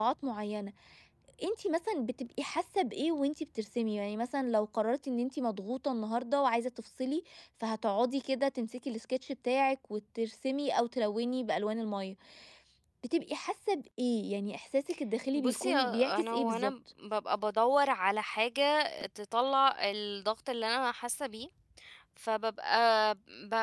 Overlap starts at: 15 s

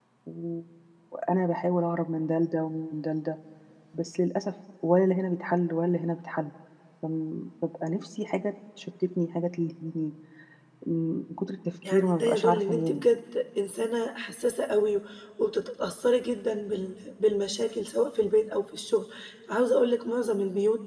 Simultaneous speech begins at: 12 s

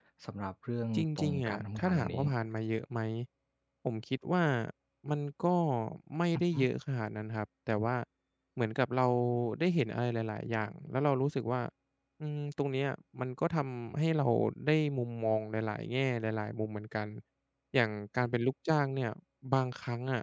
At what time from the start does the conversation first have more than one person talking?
1 s

